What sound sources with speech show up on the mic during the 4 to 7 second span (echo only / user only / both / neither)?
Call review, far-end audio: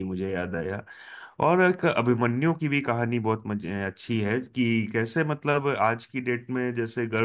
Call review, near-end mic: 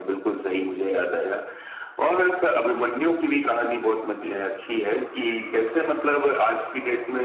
echo only